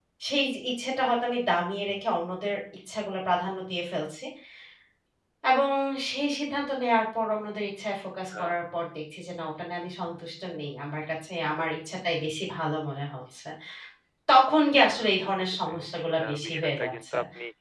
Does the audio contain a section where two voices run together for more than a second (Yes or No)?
Yes